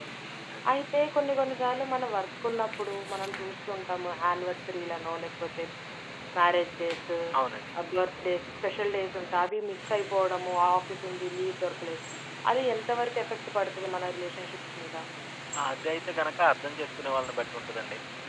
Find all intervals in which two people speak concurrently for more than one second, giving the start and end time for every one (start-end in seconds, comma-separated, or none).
none